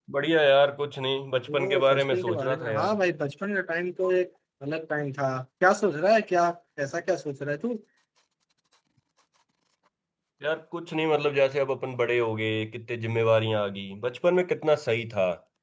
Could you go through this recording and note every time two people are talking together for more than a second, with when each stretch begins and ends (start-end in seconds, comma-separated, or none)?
1.5-3.0